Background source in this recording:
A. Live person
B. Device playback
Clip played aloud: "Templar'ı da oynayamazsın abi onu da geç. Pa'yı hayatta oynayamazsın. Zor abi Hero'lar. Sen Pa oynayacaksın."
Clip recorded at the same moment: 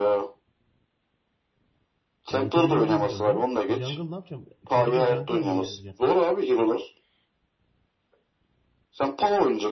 A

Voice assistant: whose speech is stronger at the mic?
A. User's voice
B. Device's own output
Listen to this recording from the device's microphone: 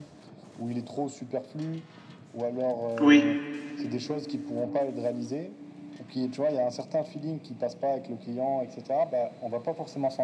A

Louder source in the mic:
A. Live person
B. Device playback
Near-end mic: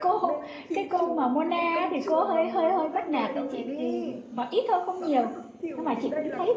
A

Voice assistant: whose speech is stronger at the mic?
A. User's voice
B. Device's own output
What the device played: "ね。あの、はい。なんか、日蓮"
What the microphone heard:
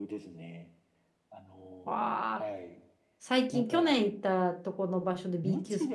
A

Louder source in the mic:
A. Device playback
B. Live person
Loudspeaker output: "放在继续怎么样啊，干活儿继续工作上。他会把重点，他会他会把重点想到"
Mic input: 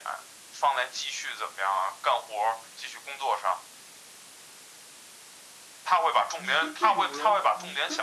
A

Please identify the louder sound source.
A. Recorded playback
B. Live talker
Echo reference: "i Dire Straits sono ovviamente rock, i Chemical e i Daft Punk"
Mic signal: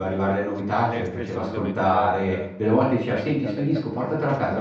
B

